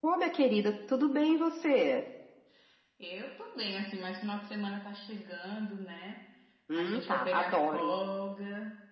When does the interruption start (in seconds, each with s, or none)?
6.8 s